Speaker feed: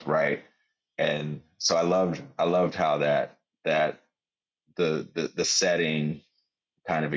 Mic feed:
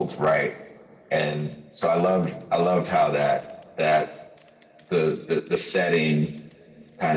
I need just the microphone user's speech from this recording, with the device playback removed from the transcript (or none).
none